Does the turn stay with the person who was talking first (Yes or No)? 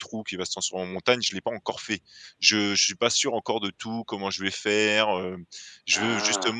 Yes